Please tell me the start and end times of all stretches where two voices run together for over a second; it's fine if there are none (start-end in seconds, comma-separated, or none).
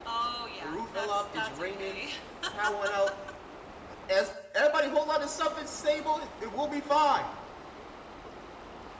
0.6-2.0